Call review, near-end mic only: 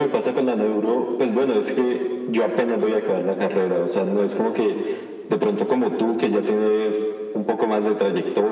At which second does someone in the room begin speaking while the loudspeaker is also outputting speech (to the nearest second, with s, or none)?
none